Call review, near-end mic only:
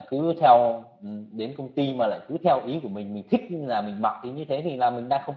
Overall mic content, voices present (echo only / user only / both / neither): user only